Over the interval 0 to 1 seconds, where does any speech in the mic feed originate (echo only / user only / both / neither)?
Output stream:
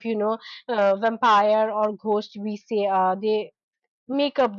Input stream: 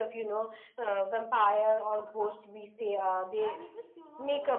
echo only